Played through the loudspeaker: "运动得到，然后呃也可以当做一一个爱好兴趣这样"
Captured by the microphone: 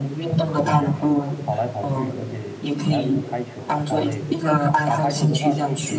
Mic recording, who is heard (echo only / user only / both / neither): both